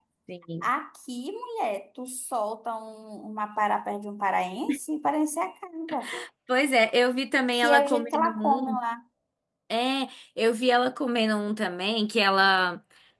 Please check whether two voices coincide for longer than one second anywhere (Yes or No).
Yes